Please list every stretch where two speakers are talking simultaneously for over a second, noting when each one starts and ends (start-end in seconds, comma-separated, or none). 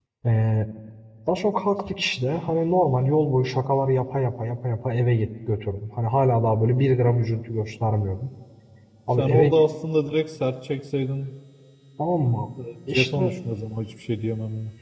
none